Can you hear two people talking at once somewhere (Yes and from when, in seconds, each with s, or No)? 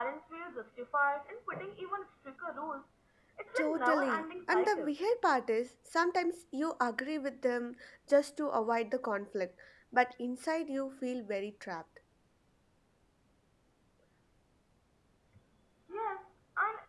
Yes, from 3.6 s